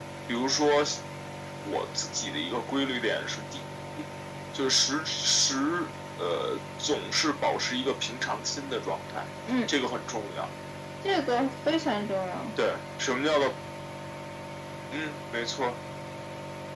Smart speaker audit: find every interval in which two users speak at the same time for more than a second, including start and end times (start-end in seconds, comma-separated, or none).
none